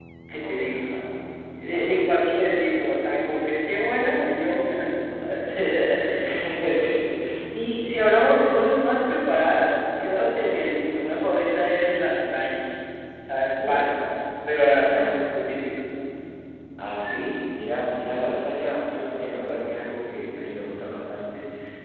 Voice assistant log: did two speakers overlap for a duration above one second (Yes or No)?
Yes